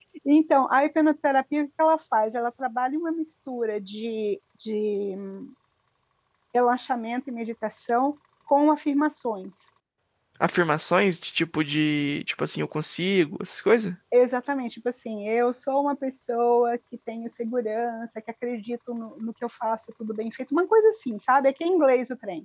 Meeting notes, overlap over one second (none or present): none